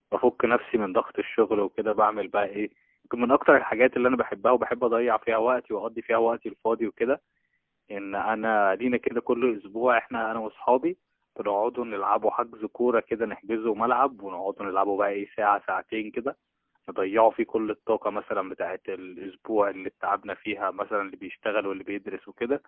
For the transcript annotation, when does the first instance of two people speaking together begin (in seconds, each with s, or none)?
none